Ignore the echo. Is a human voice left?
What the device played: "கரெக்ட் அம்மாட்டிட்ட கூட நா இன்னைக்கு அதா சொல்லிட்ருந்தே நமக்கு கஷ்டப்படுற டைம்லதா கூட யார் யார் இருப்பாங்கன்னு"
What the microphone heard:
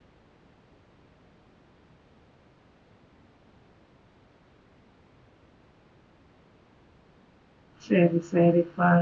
Yes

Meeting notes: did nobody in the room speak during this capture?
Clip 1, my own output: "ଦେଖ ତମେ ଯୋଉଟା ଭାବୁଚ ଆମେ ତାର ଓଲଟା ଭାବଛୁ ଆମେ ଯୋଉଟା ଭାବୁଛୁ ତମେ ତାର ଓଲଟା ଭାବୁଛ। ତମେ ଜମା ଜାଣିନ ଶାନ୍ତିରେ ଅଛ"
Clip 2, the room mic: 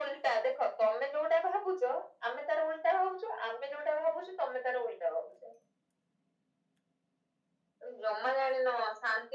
Yes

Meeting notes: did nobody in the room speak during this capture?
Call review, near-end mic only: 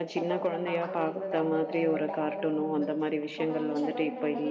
No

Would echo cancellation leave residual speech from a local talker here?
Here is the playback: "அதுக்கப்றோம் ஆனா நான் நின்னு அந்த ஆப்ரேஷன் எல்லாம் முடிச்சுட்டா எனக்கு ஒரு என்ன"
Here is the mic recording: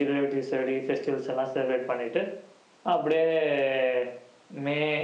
Yes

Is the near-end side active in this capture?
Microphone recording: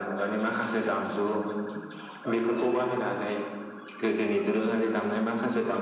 No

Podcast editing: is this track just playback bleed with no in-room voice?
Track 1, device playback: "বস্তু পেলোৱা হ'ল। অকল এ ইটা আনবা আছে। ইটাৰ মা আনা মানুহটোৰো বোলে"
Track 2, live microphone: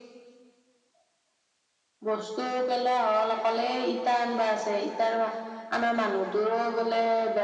Yes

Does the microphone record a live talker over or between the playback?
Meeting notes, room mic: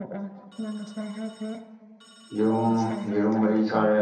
Yes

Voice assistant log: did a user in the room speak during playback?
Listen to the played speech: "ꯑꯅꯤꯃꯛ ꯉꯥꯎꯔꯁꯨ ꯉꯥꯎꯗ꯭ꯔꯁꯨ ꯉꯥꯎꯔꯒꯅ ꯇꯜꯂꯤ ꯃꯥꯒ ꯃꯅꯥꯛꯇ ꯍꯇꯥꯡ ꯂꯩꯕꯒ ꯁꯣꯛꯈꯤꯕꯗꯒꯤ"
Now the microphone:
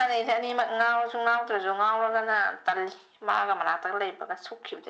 No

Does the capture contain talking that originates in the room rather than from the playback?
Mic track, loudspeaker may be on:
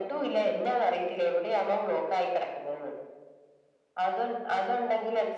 No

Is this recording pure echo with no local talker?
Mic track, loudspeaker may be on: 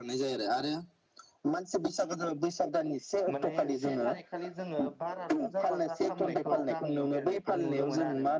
No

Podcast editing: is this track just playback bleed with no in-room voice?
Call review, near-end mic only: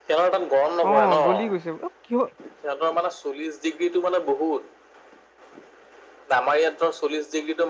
No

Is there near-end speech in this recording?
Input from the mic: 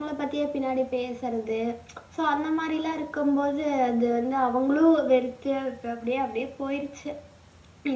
Yes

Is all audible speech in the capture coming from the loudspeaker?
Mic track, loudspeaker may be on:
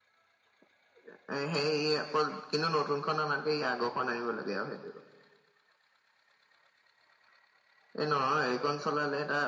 Yes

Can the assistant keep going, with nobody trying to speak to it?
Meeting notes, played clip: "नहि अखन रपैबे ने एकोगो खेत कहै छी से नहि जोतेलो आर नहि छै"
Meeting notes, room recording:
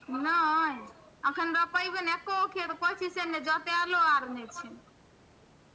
Yes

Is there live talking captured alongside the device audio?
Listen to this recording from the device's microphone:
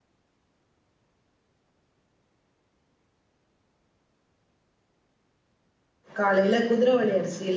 Yes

